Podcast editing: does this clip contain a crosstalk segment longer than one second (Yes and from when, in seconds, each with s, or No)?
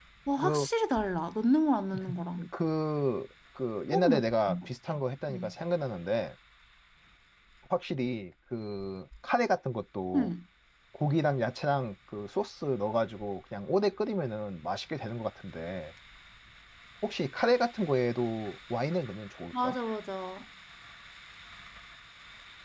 No